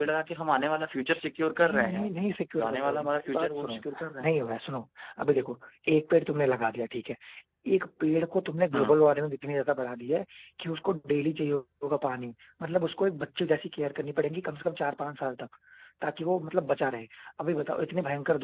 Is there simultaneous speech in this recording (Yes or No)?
Yes